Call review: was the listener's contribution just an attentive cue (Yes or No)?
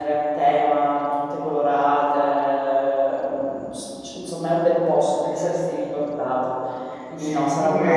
No